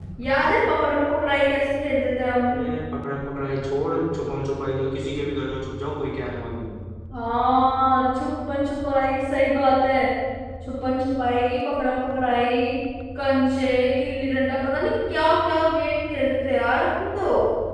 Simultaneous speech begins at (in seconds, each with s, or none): none